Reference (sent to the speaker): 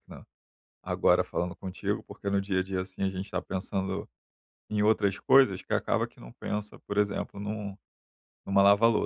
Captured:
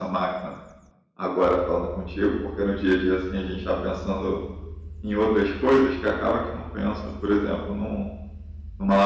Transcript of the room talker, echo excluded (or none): none